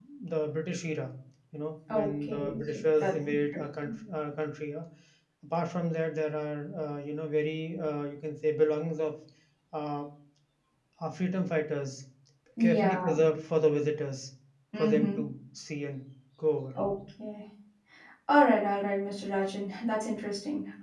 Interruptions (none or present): present